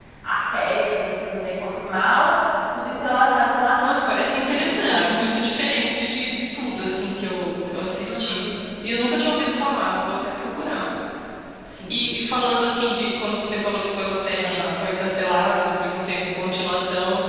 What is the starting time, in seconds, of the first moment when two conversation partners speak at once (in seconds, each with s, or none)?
3.8 s